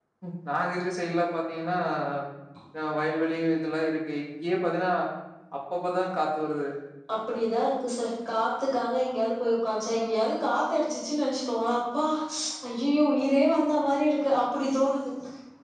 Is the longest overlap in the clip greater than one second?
No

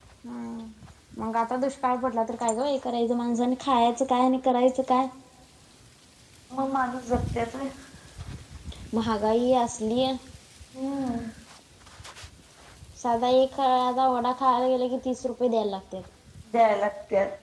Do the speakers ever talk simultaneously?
No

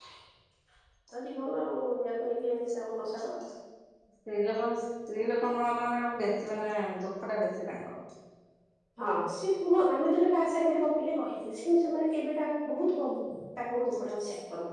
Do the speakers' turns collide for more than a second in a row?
No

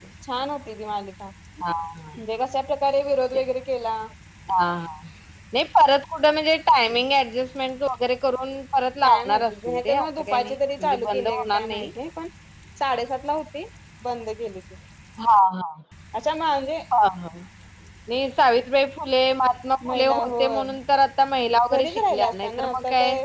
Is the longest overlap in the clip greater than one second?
Yes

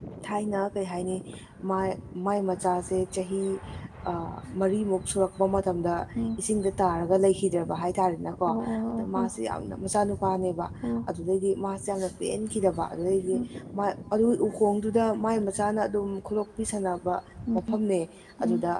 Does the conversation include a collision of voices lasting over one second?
No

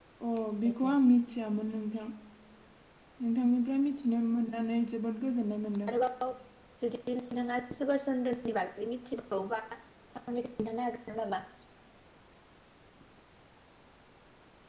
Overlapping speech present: No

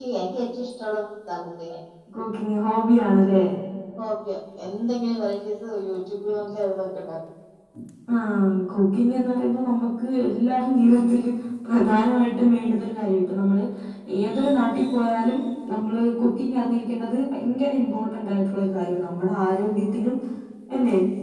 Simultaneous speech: No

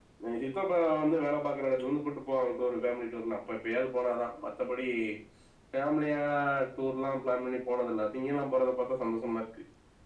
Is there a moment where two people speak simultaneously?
No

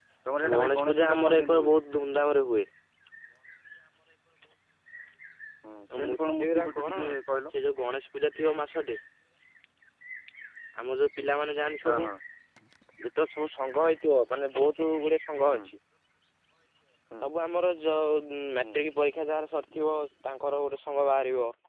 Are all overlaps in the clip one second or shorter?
No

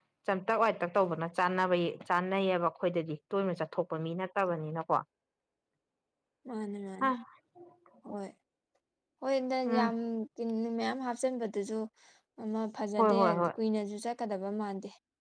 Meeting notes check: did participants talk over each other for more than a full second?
No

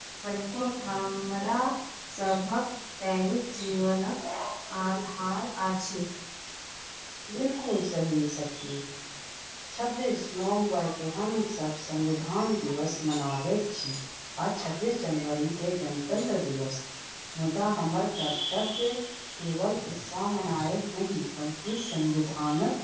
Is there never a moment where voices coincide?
Yes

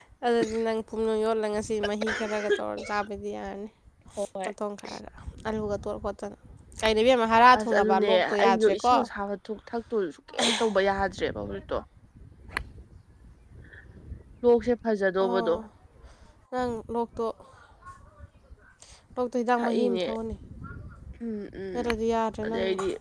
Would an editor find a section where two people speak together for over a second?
Yes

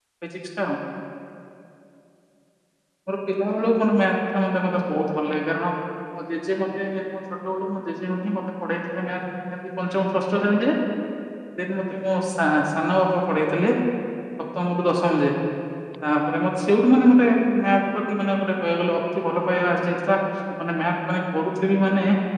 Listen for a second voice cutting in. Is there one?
No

